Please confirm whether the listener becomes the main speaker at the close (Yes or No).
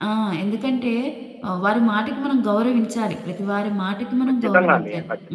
Yes